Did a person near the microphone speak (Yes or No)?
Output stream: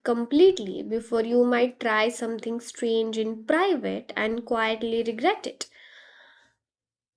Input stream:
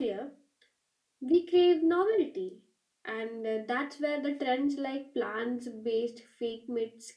Yes